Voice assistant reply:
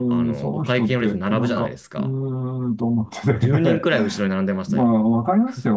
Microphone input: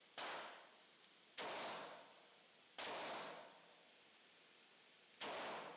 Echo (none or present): none